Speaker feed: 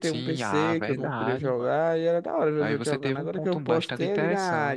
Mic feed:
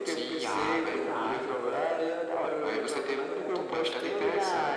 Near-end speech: none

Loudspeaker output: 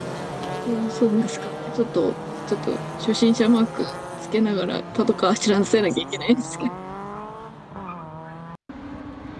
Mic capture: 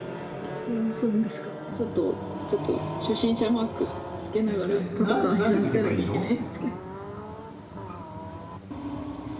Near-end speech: present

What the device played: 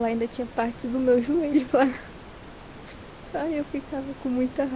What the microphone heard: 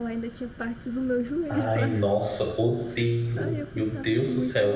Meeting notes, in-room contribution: present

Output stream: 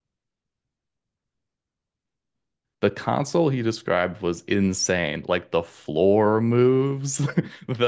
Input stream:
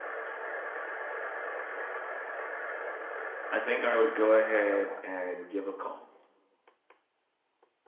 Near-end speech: present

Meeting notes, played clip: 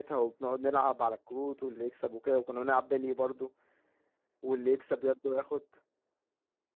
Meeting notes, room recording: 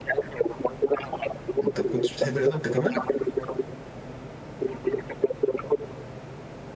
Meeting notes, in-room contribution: present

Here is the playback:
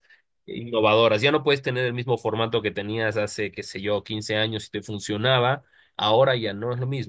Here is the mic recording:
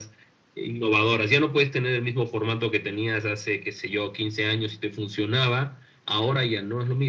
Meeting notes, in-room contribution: none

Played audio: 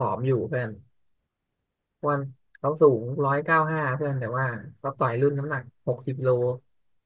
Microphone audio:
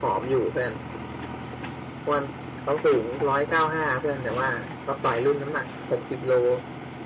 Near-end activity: none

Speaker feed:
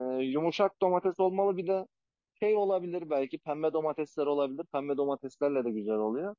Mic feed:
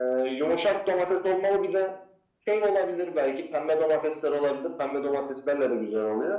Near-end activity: none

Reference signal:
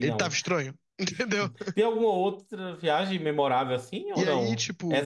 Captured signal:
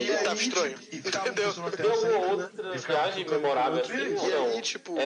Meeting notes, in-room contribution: present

